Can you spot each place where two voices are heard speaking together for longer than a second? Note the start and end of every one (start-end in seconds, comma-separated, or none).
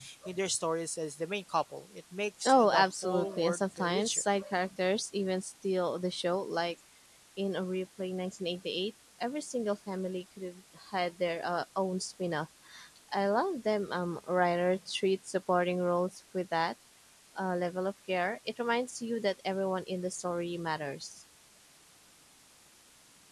2.5-4.2